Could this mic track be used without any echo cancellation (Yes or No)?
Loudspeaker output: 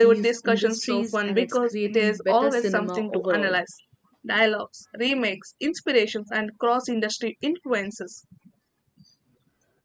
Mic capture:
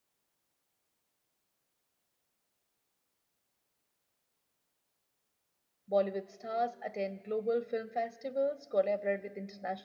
Yes